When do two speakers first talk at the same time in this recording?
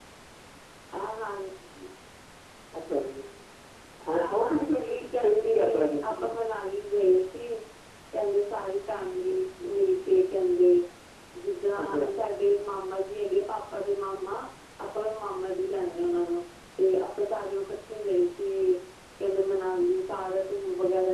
4 s

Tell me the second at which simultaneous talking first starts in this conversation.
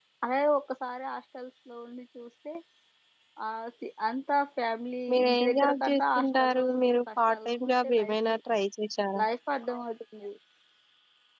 5 s

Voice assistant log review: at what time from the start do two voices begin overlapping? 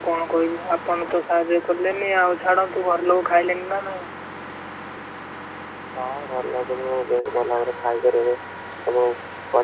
none

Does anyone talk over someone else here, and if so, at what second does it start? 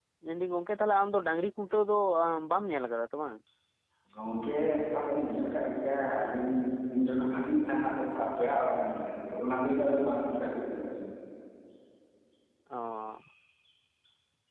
none

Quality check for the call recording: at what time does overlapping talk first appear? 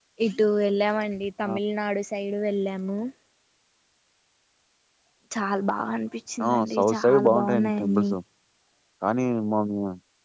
6 s

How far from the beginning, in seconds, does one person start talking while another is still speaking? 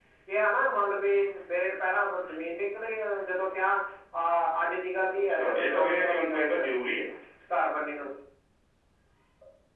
5 s

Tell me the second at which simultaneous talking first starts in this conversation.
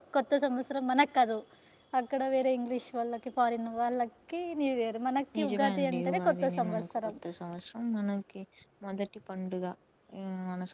5 s

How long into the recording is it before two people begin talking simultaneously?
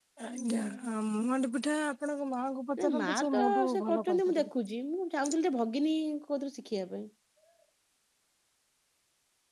3 s

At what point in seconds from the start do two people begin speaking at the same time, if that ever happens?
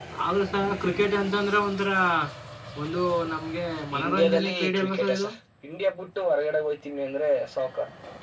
4 s

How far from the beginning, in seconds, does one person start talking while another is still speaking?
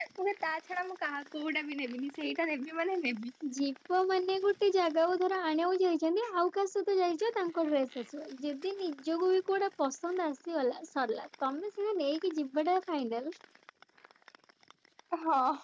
none

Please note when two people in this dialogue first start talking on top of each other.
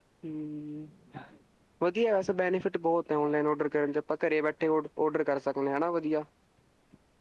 none

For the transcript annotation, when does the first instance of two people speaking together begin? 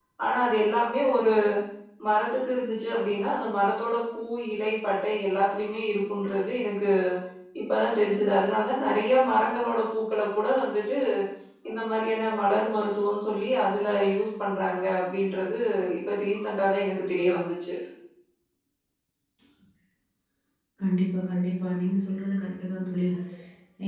none

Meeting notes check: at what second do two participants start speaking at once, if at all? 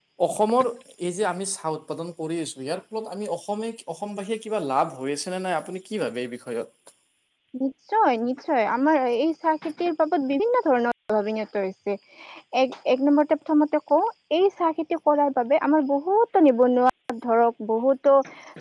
none

